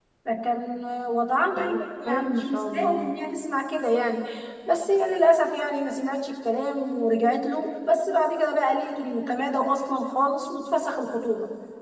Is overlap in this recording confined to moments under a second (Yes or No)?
No